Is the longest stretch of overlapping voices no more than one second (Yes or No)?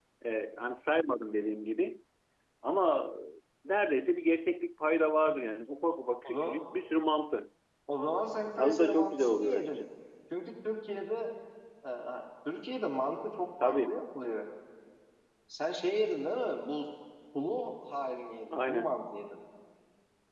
No